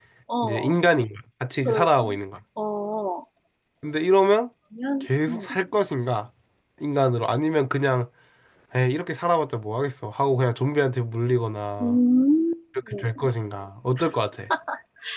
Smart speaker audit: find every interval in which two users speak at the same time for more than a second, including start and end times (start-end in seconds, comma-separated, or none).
none